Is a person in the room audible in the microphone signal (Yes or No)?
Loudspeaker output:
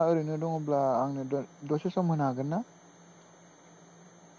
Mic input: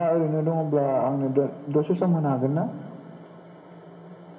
No